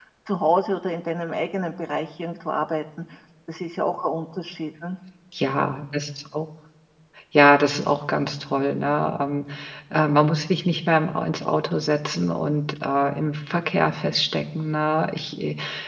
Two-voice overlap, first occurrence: none

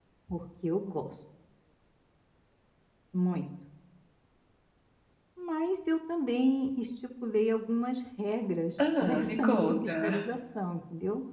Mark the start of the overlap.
8.8 s

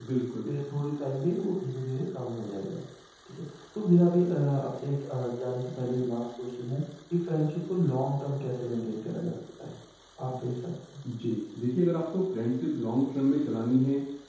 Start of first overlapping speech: none

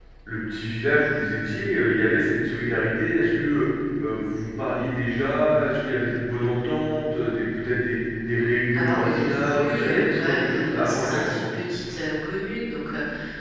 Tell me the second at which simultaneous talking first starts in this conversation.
8.7 s

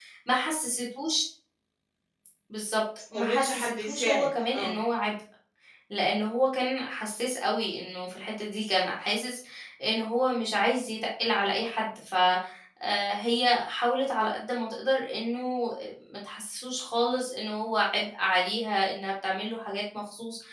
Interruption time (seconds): 3.1 s

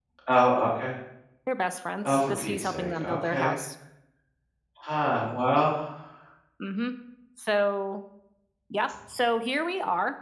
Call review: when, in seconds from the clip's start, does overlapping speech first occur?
2.0 s

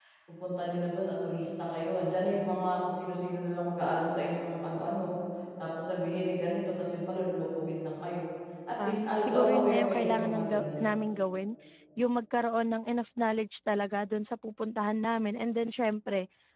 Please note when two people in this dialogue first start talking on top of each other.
8.8 s

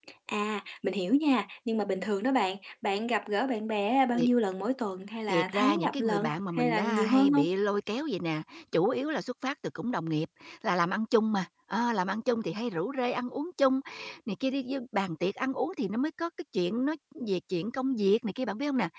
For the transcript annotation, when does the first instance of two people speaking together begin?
5.3 s

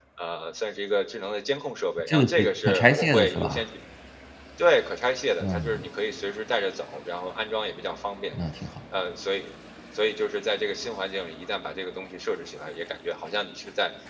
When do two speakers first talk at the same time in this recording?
2.1 s

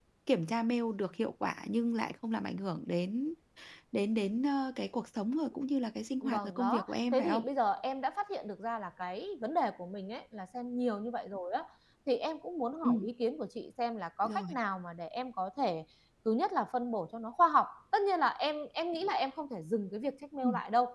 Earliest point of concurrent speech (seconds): 6.2 s

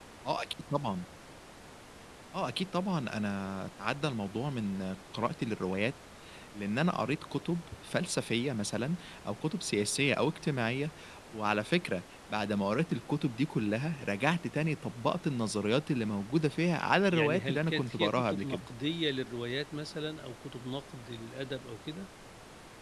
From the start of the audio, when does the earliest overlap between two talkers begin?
17.1 s

